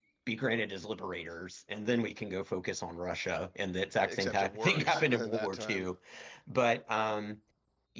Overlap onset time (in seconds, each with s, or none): 4.1 s